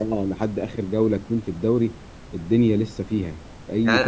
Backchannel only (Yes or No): No